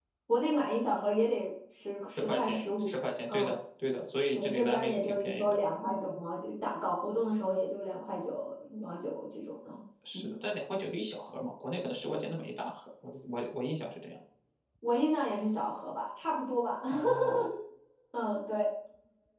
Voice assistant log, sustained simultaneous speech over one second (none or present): present